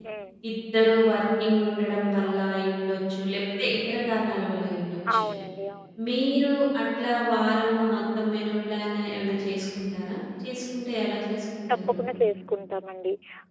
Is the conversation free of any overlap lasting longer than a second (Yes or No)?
Yes